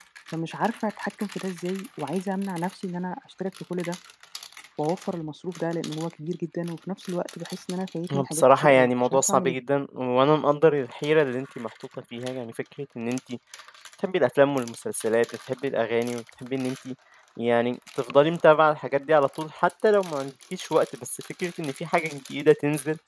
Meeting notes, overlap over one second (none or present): present